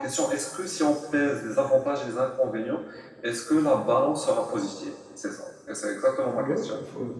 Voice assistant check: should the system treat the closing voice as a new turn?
Yes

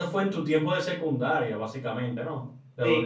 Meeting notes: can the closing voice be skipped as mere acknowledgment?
No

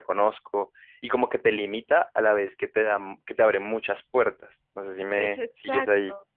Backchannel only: No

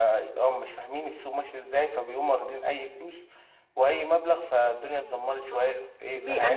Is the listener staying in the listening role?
No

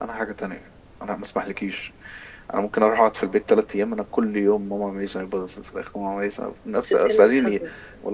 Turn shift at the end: No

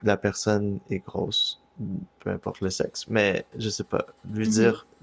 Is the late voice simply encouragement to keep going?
Yes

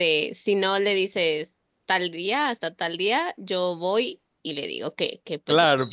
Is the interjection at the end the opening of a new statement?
Yes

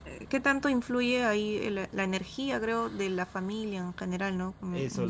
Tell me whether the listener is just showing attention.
No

